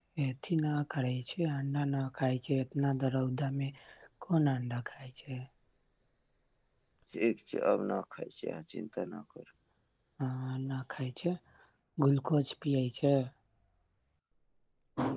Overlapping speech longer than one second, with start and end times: none

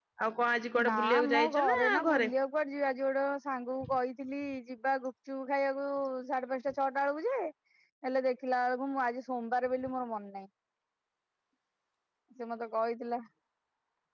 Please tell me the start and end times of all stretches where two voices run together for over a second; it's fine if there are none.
0.9-2.3

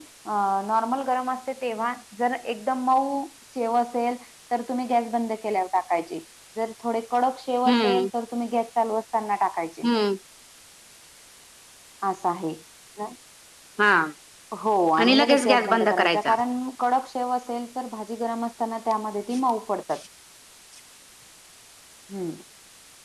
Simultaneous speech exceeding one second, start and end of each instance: 15.0-16.3

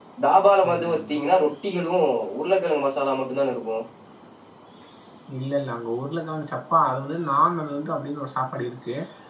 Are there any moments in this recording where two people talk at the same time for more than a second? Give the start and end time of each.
none

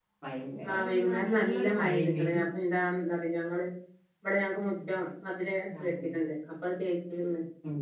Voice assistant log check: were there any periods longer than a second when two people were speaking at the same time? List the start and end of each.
0.7-2.4

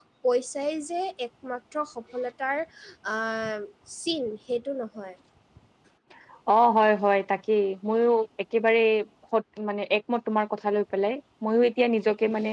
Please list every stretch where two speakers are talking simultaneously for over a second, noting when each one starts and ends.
none

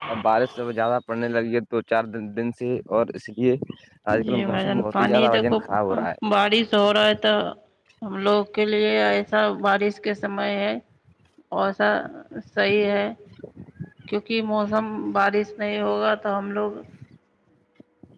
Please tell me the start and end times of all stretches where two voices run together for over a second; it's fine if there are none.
4.2-5.6

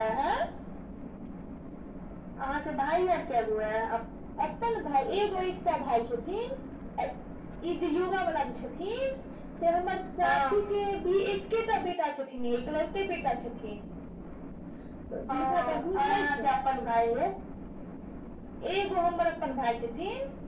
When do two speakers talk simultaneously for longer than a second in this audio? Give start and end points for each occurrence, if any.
15.3-16.5

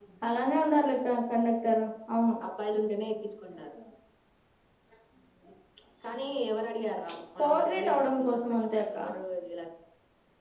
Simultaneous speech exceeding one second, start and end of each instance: 7.4-9.0

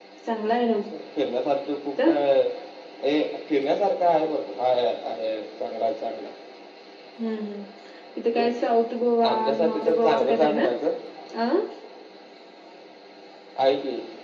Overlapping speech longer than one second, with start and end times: 9.3-10.6

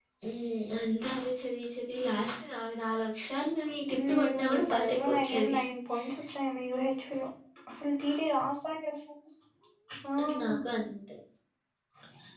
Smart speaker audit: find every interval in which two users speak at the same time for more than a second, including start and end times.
4.1-5.6

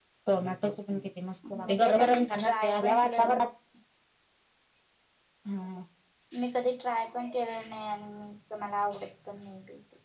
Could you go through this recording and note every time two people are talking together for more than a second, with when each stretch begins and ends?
1.7-3.3

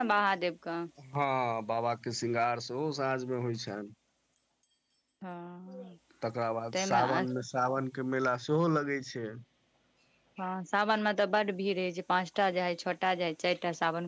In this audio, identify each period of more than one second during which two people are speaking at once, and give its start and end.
none

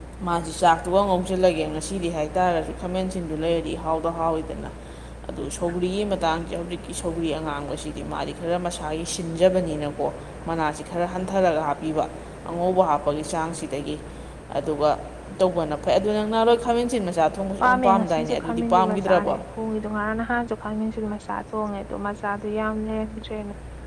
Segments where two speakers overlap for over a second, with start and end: 17.6-19.3

